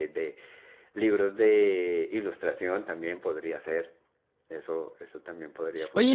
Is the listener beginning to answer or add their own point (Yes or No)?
Yes